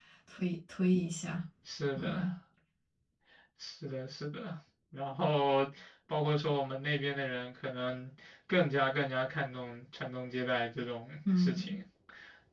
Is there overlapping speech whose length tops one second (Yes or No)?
No